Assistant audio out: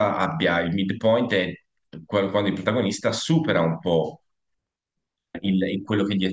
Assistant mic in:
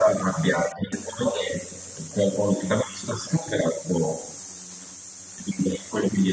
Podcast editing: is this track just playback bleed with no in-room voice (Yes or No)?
Yes